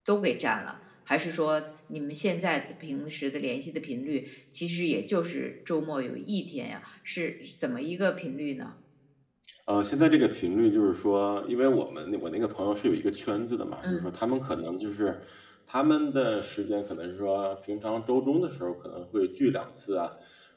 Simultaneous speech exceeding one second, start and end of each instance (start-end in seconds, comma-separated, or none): none